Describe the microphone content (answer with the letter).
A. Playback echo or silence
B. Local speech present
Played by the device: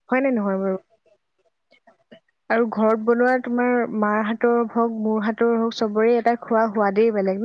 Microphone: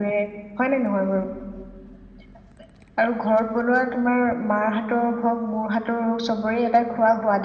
A